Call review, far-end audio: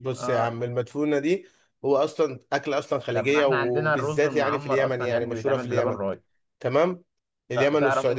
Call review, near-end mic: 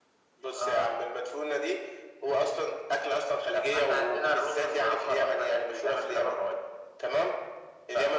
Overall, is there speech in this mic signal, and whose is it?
echo only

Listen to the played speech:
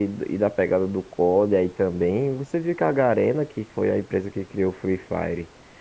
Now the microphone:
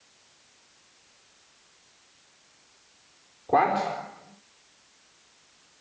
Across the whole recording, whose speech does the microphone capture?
user only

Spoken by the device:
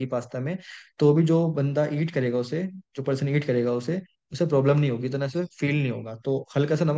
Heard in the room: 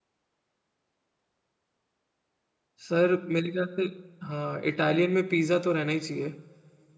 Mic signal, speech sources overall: user only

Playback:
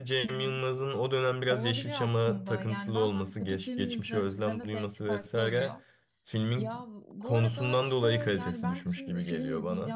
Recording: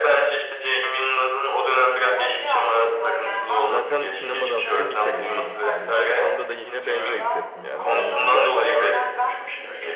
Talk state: both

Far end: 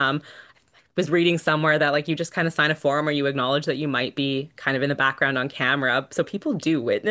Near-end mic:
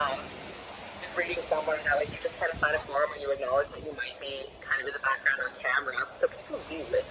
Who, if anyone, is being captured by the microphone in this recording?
echo only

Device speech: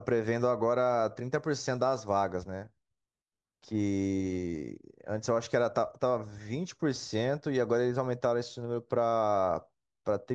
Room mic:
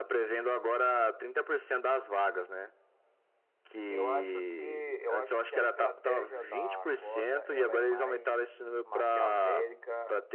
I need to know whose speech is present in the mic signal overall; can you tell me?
both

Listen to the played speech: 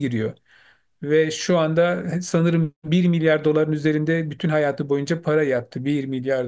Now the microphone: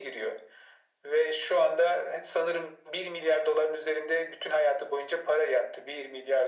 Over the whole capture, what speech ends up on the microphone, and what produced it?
echo only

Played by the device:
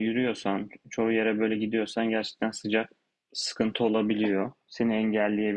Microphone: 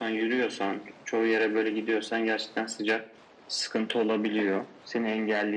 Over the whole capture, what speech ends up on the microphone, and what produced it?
echo only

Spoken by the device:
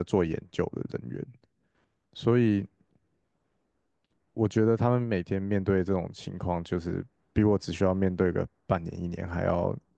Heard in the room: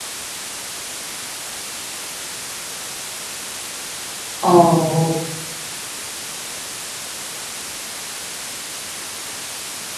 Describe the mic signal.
user only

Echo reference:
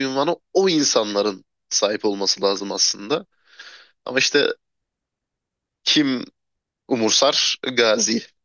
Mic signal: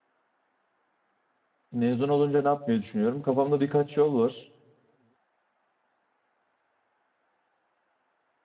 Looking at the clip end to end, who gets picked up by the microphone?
user only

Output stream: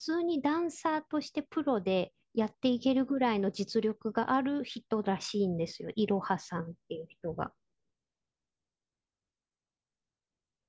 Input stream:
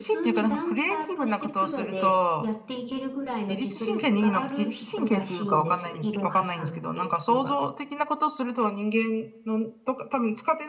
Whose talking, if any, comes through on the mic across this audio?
both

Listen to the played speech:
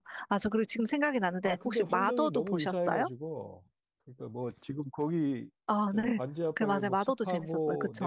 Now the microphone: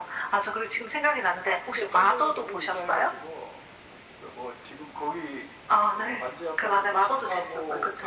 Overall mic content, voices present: echo only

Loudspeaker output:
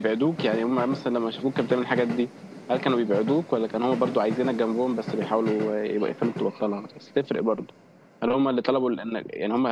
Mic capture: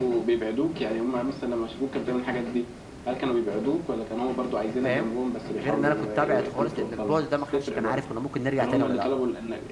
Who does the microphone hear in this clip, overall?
both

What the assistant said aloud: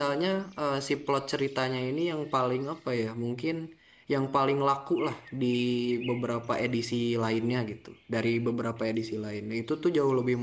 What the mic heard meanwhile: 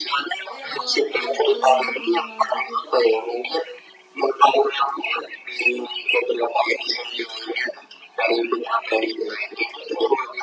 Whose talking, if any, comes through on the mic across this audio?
both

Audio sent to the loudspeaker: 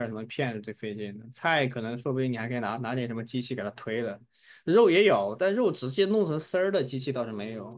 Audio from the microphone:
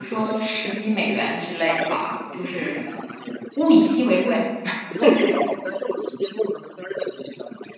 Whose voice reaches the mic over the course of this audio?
both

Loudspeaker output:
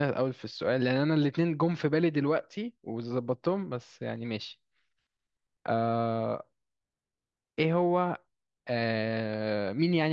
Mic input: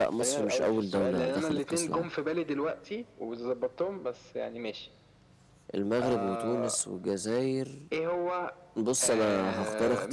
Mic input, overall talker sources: both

